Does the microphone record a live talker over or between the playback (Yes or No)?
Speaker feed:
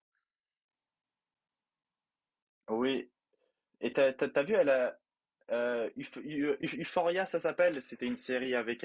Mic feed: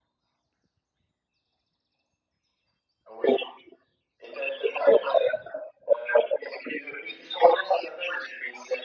No